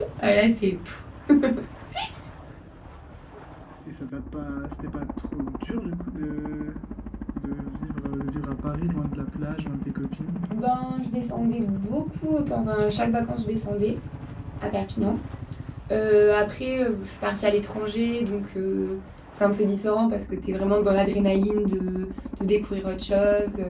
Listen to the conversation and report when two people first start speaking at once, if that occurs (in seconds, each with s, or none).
none